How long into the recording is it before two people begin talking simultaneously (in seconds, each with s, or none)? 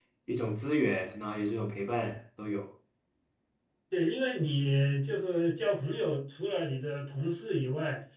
none